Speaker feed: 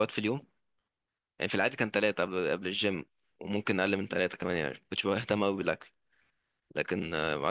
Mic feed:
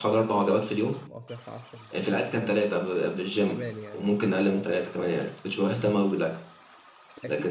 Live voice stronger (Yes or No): No